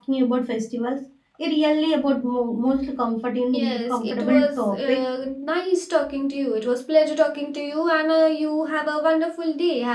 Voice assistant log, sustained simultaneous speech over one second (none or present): present